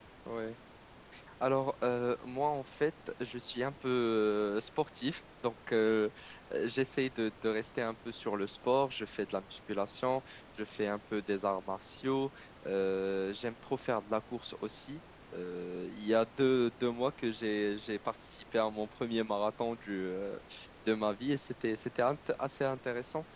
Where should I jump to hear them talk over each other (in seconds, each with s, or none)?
none